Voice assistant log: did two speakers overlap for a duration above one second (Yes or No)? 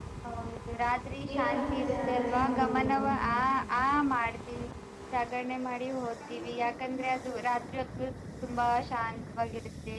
Yes